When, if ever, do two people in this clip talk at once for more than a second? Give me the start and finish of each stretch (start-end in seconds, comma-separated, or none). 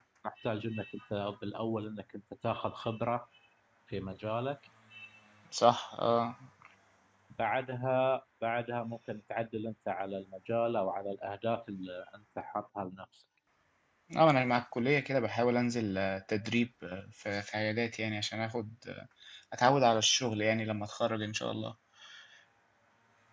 none